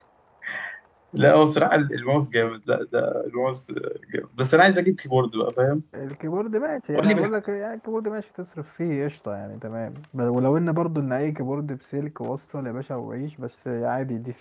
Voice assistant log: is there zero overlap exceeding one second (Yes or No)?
Yes